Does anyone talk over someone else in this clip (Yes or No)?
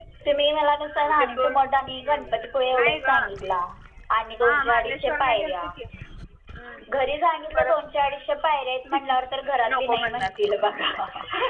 Yes